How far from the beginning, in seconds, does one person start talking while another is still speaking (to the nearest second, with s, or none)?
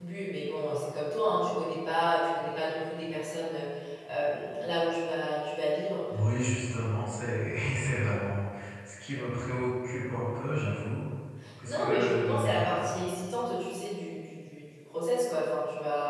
12 s